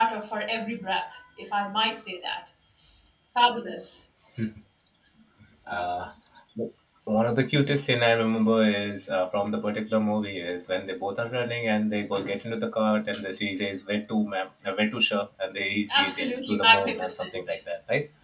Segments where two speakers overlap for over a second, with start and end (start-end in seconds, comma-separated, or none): 16.0-17.4